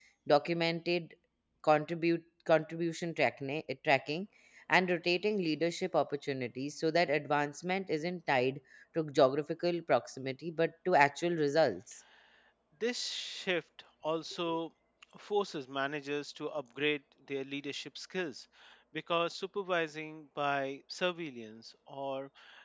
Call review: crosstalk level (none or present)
none